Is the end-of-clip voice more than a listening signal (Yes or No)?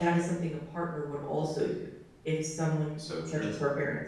No